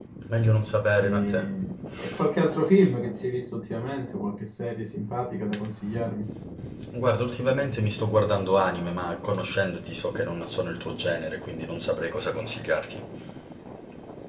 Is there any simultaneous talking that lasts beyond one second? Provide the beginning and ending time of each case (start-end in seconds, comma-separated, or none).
none